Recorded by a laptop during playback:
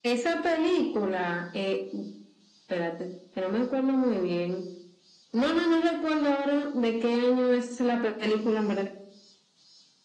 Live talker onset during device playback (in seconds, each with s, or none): none